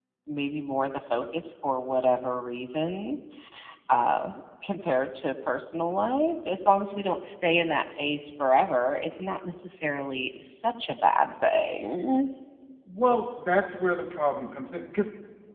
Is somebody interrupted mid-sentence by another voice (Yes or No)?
No